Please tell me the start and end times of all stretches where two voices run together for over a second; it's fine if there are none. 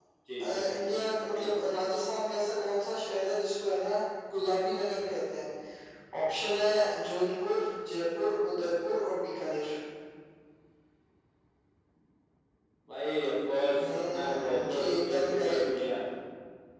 13.8-15.6

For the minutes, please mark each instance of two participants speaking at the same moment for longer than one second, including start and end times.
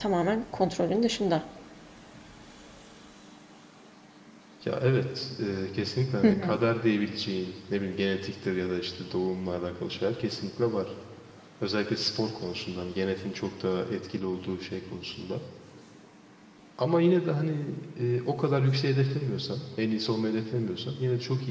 none

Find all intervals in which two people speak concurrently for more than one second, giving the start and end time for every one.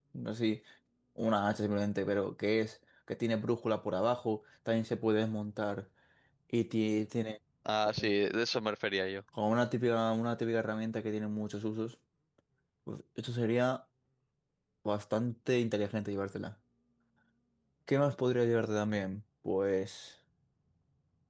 none

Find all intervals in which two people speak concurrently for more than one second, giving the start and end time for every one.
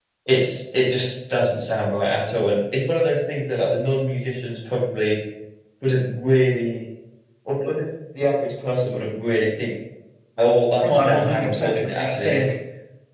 10.8-12.5

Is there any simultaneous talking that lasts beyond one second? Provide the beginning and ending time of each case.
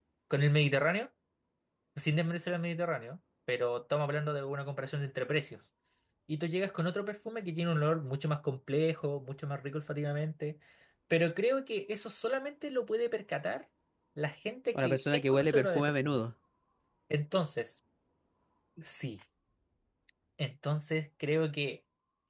14.8-16.2

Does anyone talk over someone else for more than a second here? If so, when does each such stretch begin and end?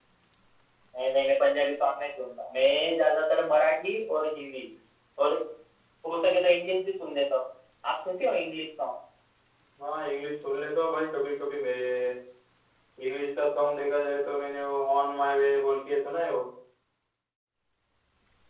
none

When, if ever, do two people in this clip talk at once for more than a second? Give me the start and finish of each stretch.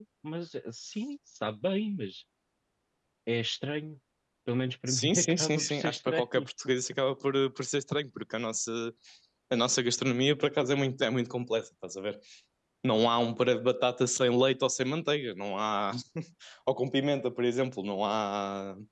4.9-6.5

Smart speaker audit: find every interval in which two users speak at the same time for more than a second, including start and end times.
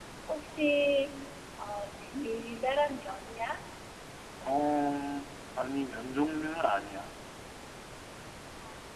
none

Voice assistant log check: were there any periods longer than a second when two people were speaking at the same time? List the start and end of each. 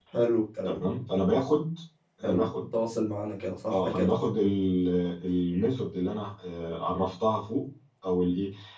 none

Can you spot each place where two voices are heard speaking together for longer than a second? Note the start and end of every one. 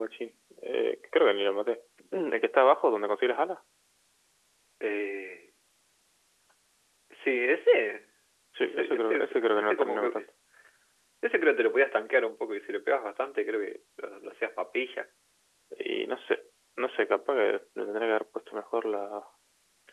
8.6-10.2

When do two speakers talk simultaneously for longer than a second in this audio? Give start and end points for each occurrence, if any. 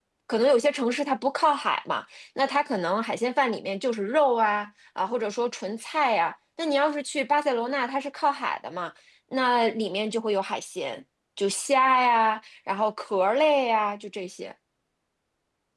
none

